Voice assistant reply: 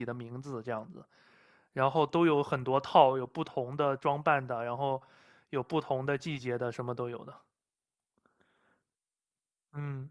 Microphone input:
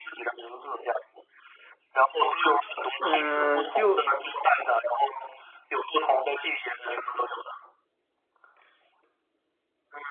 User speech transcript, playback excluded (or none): 嗯，就